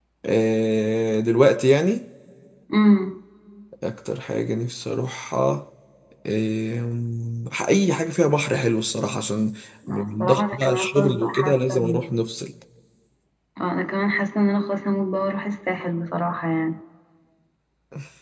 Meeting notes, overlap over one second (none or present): present